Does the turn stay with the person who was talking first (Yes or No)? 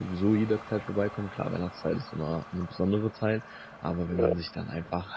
Yes